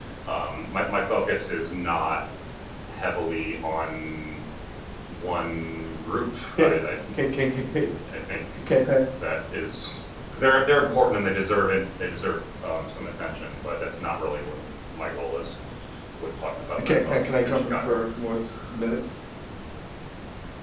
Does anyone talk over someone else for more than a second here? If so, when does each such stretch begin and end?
16.8-18.0

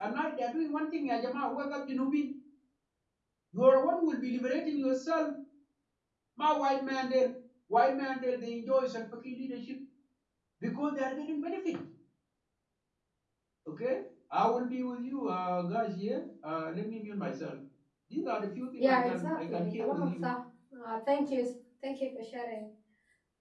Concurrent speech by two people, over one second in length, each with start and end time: 18.8-20.3

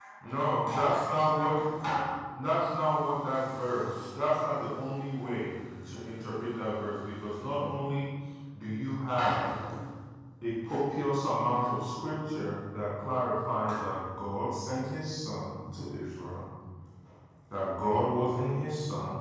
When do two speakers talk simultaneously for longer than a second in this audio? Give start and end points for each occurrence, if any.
none

